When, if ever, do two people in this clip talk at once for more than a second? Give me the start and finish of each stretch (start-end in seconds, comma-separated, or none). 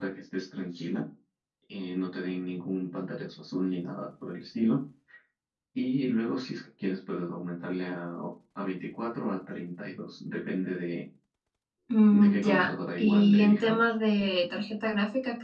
12.1-13.8